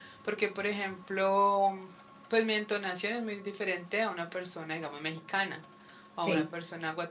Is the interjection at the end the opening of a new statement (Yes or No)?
No